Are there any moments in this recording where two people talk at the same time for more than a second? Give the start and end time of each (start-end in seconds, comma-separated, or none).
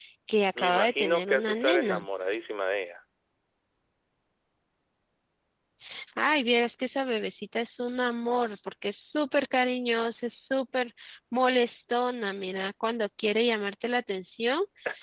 0.6-2.0